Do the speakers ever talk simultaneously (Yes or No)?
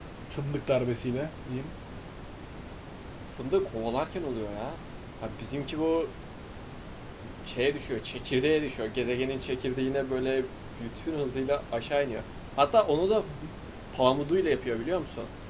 No